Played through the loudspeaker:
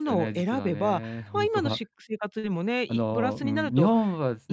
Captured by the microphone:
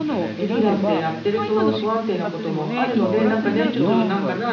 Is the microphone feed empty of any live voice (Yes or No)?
No